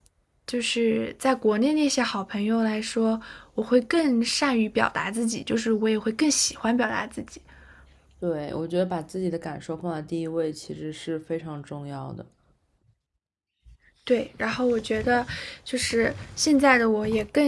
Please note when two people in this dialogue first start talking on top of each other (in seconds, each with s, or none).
none